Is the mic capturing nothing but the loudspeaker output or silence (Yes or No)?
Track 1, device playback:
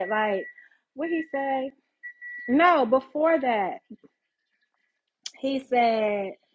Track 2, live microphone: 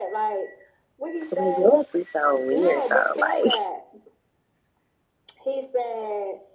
No